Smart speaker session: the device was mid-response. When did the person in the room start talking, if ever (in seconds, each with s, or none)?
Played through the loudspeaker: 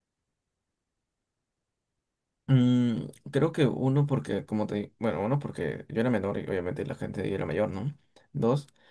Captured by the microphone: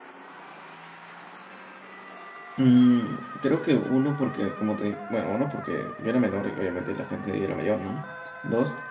none